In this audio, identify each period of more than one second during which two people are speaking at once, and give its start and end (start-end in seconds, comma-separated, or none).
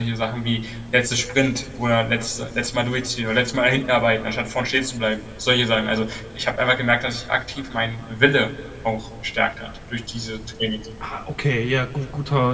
none